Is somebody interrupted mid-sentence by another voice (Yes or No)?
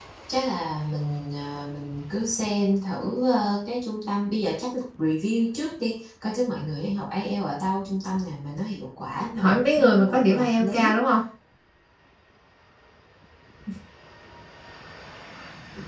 Yes